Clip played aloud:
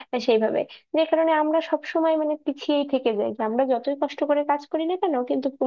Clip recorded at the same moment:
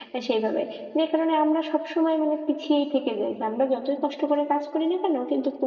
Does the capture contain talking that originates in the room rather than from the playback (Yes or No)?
No